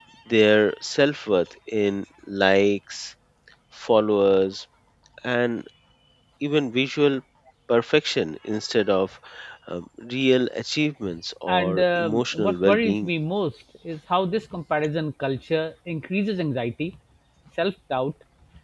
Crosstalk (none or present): present